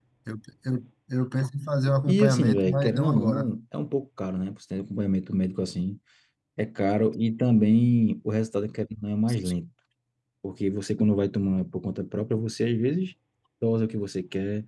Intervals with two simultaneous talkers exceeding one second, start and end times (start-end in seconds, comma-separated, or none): 2.1-3.5